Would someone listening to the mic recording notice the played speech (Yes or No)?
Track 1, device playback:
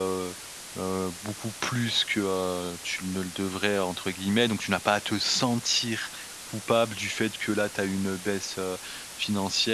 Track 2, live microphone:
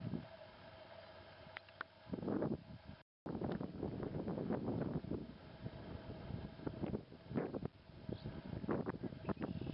No